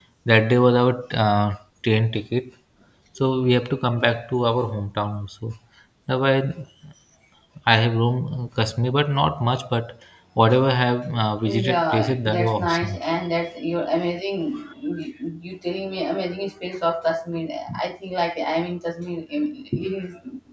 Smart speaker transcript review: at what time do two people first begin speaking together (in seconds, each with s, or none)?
11.5 s